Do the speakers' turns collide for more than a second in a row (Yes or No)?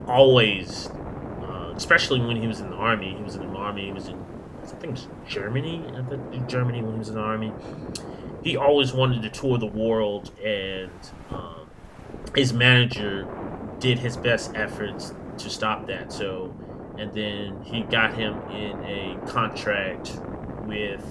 No